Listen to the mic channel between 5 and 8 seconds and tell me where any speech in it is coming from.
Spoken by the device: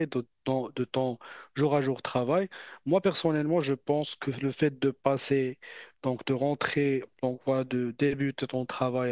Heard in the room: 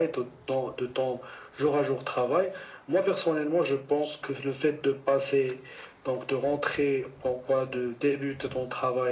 echo only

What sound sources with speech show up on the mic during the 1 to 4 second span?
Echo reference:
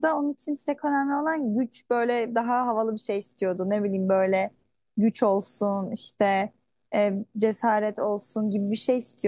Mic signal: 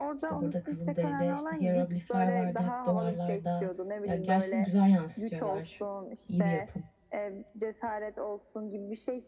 both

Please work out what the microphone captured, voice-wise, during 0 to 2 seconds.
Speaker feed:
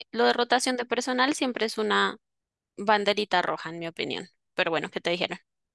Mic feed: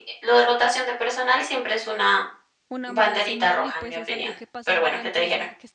echo only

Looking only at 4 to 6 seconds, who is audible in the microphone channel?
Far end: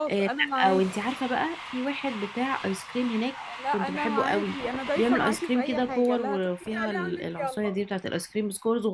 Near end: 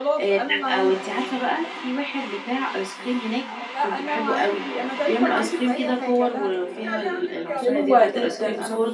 echo only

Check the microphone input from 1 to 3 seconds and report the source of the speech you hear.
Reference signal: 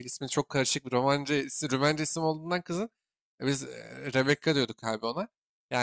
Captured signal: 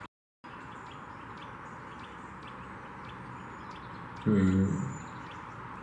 neither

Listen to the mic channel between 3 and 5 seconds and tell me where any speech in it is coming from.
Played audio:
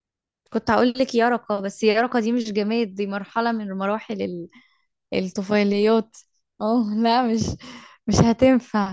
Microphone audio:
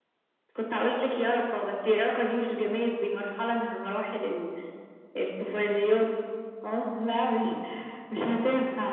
echo only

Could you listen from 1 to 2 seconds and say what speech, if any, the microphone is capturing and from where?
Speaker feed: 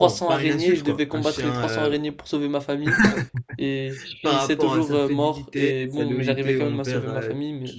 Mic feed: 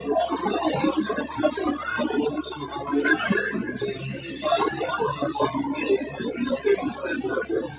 echo only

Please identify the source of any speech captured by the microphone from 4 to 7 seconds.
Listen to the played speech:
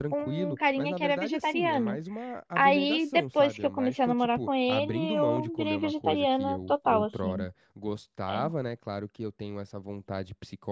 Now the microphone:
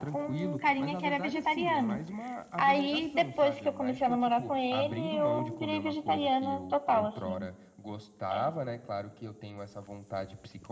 echo only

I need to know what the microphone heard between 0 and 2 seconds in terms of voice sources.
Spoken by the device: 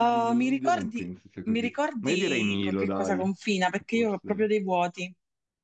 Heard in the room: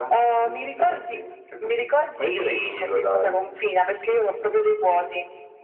echo only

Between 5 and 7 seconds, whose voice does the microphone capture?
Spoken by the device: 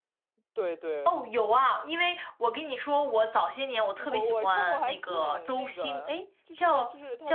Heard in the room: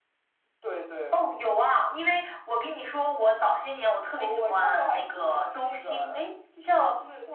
echo only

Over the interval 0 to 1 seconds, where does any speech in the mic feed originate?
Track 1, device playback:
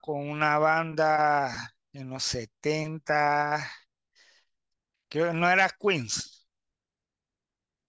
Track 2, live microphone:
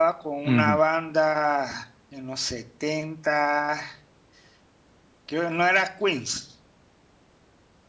both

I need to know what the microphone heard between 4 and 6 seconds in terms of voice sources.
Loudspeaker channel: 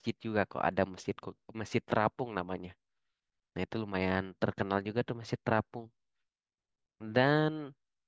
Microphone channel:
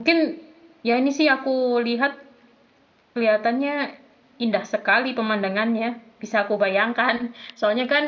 user only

